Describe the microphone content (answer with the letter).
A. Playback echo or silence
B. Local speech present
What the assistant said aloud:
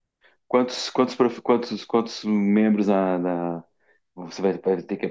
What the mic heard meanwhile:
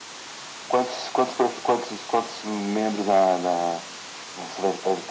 A